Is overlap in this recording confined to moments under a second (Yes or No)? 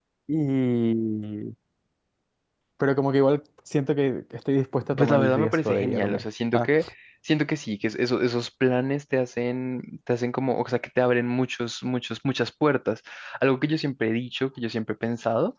No